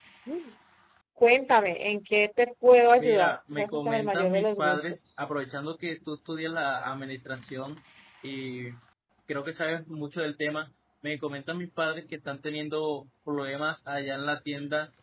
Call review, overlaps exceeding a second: present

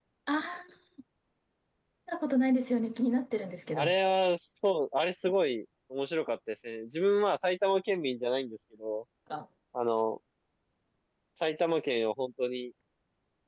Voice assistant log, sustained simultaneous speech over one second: none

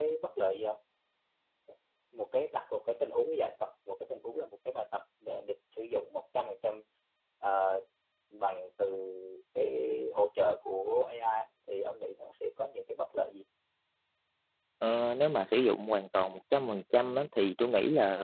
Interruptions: none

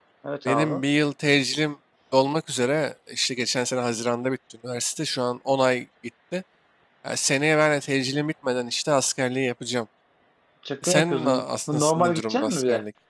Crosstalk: present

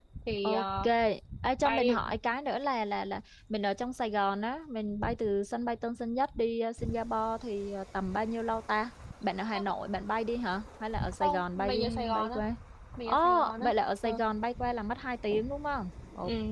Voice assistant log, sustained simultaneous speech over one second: present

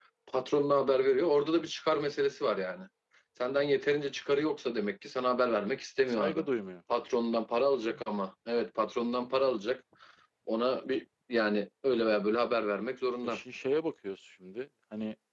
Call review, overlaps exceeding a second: none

